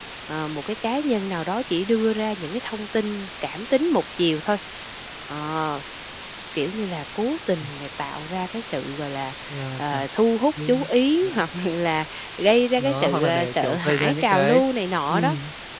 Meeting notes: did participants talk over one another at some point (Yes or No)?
Yes